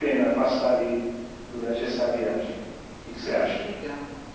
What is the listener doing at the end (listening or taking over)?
taking over